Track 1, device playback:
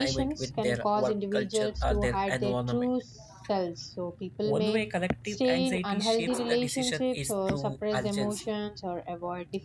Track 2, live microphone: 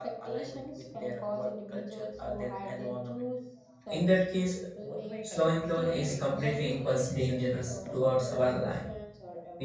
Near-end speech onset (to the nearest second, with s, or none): 4 s